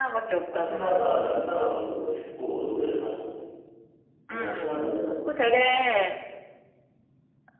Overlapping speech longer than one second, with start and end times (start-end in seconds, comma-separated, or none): none